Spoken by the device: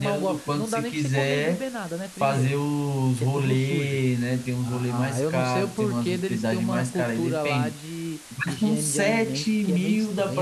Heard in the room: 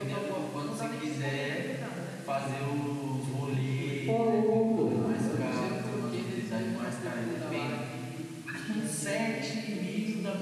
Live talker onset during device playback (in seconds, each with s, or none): 4.1 s